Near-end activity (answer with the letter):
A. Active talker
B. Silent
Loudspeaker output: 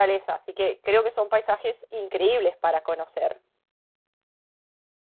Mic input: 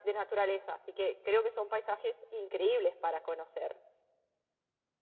B